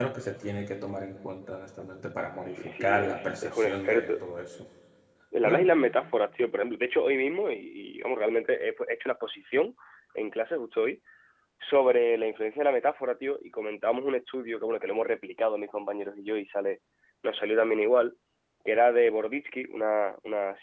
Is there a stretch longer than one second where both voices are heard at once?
Yes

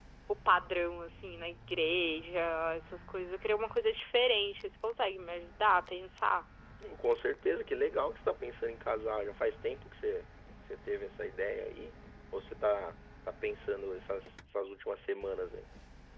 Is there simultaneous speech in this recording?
No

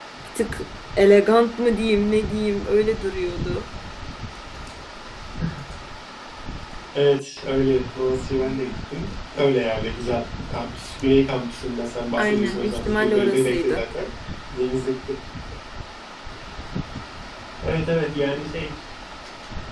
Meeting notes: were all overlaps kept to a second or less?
No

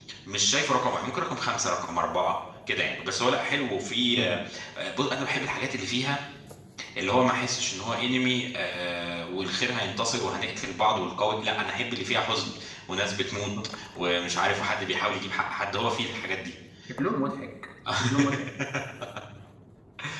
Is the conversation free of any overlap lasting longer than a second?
Yes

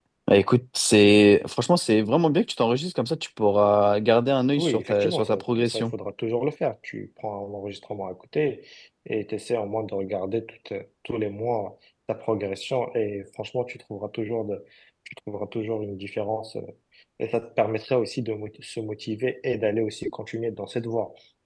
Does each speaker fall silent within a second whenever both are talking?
No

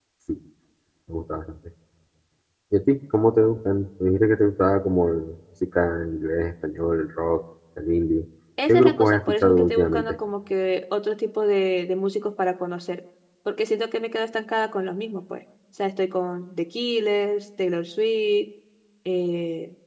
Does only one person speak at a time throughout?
No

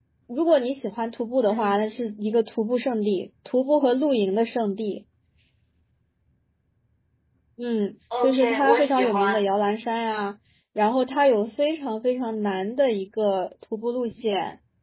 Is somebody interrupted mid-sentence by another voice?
Yes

